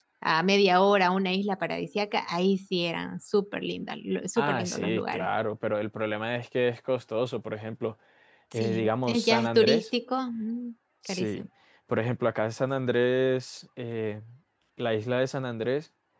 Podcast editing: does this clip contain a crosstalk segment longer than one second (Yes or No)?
Yes